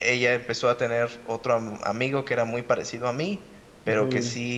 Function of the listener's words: listening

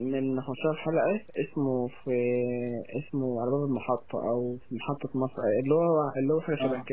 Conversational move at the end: taking over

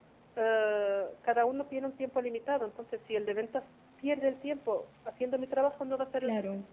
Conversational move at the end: taking over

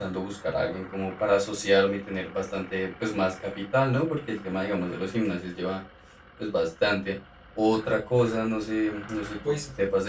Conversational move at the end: listening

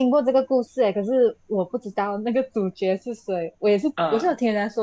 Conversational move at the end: listening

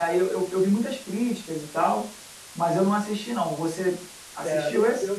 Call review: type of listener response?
taking over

